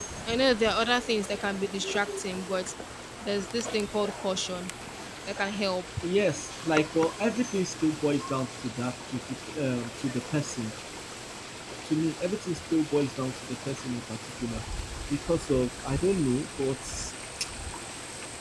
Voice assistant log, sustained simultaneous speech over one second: none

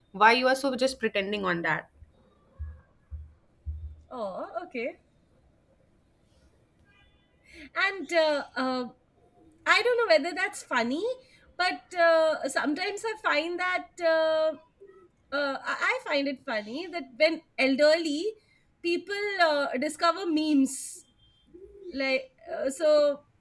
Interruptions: none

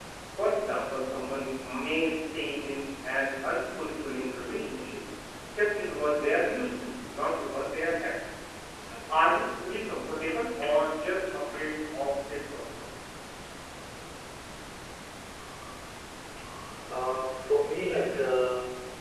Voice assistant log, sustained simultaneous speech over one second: none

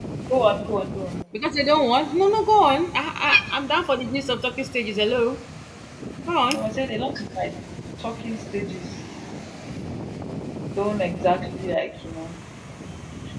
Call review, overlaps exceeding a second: none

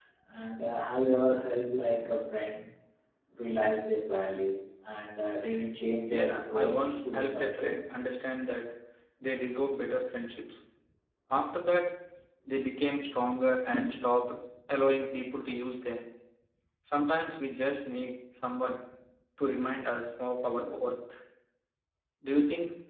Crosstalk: present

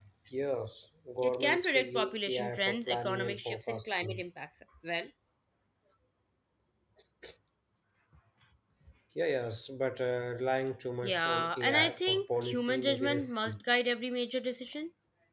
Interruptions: present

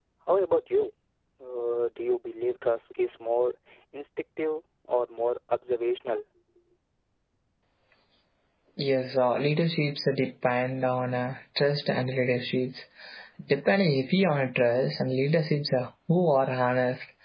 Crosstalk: none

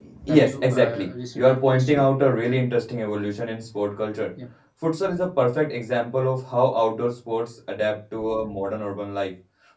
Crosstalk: present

